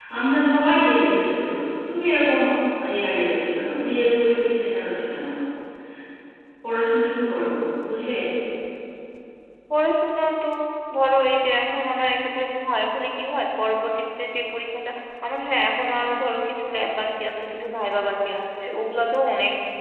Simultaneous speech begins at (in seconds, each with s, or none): none